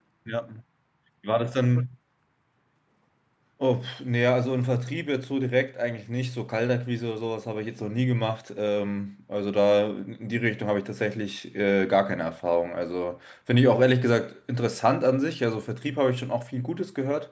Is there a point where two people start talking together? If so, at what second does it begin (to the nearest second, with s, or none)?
none